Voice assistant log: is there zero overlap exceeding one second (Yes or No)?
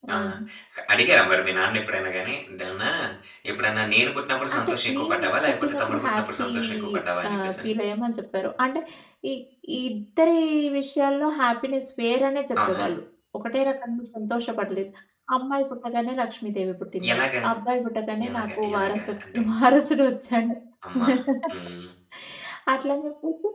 No